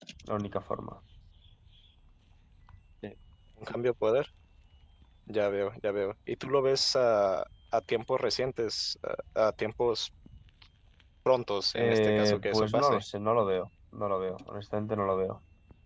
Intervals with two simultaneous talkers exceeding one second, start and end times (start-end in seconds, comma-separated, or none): 11.8-13.0